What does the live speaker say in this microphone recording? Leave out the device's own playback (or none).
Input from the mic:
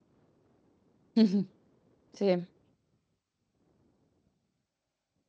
Mh-mh. Sì.